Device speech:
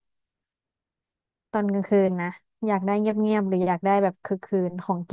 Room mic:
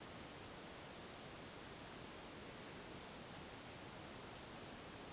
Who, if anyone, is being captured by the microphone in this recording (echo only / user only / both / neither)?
neither